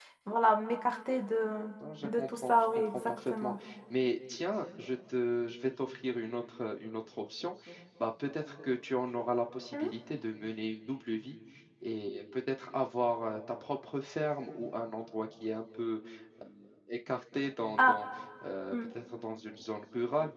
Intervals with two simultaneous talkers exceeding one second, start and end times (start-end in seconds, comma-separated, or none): 2.0-3.5